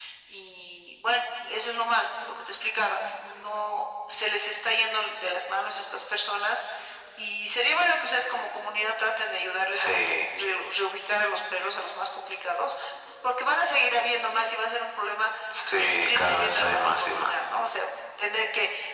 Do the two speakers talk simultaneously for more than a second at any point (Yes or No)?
Yes